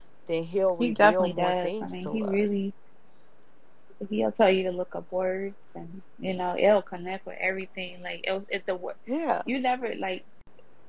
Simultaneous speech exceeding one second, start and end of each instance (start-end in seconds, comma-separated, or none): 0.8-2.4